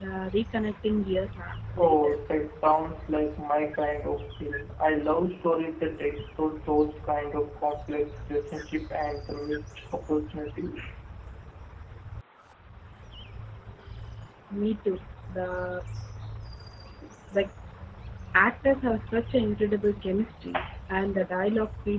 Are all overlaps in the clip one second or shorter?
Yes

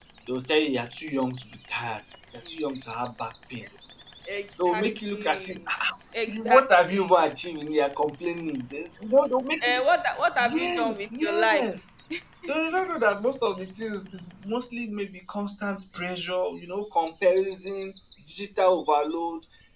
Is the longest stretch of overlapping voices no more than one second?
No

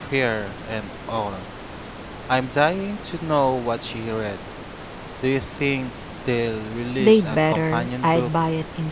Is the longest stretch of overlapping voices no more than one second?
No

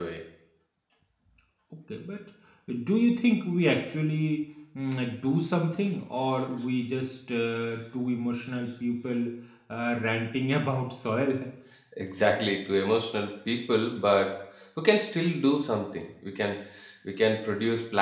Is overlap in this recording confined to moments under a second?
Yes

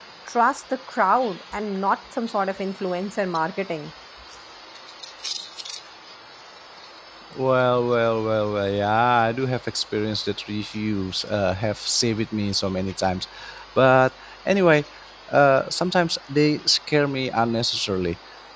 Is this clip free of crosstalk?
Yes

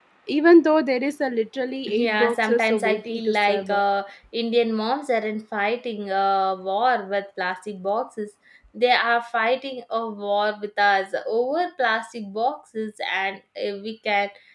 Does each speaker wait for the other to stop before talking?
No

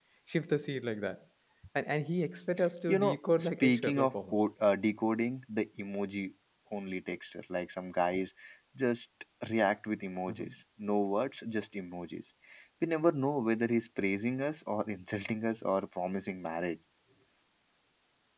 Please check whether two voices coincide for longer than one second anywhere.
Yes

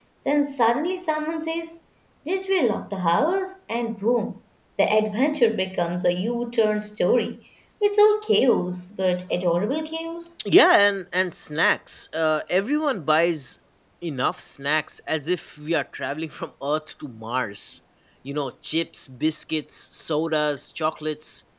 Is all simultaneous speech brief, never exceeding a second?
Yes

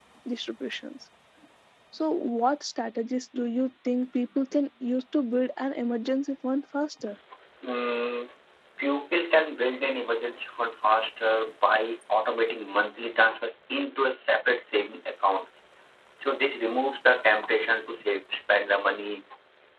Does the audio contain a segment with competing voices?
No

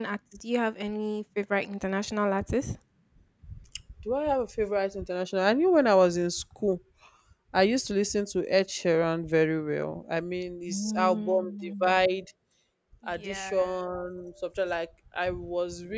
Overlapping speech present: Yes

